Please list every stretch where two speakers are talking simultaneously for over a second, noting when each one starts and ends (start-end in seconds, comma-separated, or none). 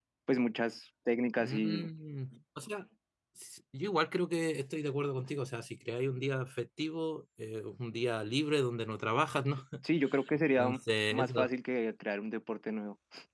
none